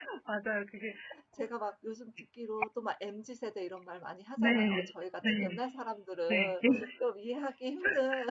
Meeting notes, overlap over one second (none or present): none